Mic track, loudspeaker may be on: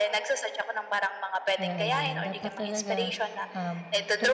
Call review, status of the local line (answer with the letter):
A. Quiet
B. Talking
B